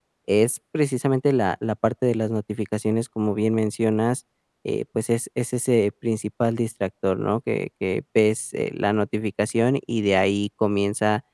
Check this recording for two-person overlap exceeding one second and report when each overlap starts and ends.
none

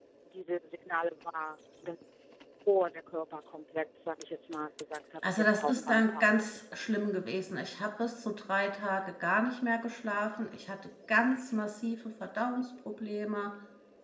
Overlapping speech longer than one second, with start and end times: 5.2-6.4

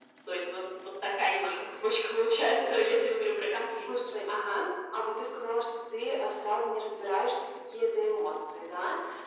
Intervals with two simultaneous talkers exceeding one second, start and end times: none

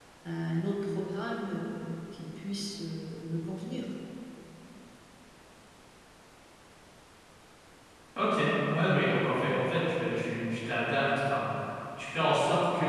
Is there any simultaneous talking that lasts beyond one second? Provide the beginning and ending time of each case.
none

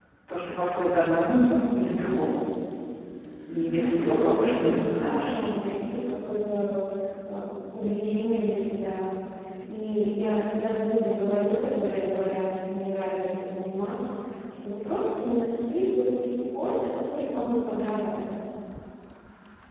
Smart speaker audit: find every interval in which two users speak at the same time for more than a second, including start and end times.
3.5-5.3

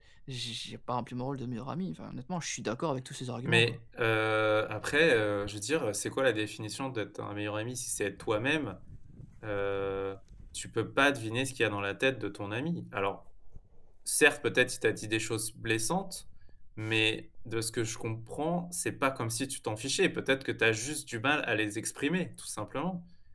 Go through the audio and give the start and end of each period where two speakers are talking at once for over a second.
none

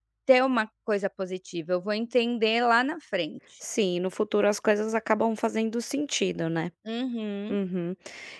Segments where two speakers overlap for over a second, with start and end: none

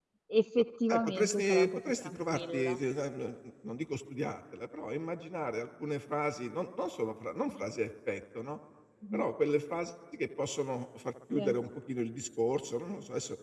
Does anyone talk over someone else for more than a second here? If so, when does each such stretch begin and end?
0.9-2.8

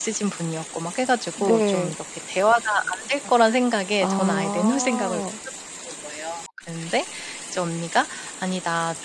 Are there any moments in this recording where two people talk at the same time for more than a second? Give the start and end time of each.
4.0-5.2

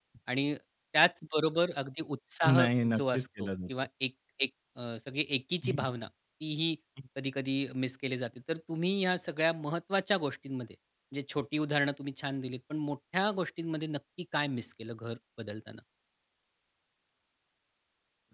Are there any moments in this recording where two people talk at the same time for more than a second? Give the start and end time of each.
2.5-3.7

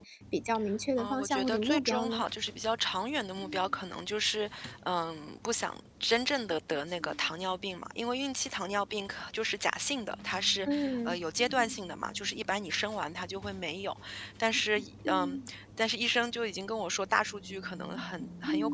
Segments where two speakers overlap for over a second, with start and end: 1.0-2.2

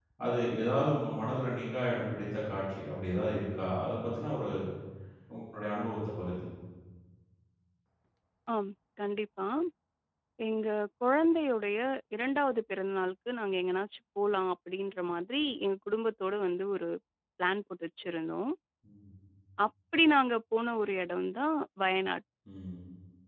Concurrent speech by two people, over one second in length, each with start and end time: none

